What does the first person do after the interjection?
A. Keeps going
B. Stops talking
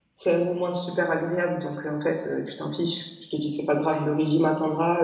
A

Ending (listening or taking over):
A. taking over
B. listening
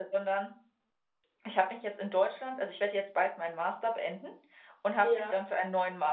B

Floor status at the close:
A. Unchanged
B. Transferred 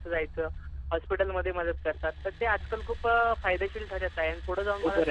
B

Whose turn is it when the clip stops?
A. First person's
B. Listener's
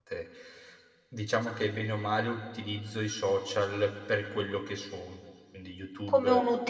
B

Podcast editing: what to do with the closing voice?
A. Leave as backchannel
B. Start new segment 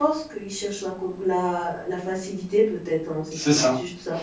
B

